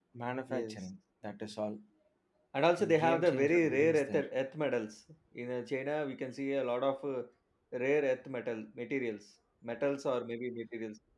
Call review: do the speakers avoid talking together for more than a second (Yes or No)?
No